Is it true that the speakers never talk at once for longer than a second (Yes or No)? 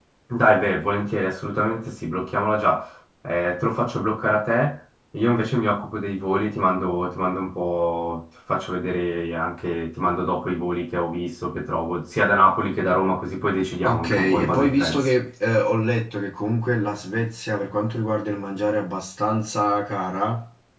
No